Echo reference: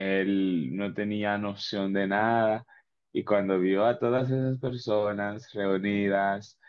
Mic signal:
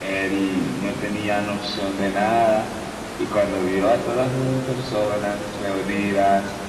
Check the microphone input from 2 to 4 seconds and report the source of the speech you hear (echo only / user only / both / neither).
echo only